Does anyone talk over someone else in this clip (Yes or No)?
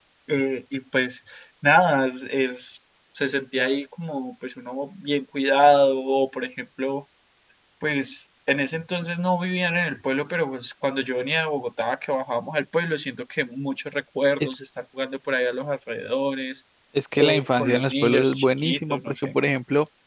Yes